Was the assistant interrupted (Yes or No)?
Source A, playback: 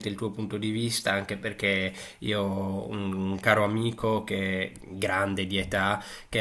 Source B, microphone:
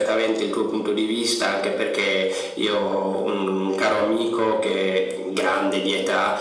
No